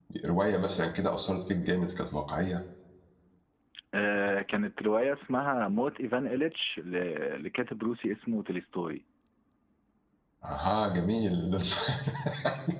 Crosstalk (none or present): none